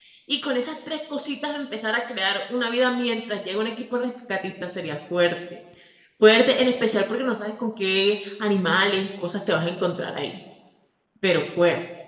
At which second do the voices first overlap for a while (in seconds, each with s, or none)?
none